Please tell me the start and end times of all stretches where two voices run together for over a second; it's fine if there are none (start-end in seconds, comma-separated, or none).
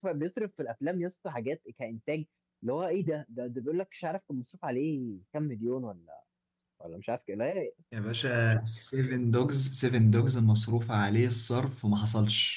none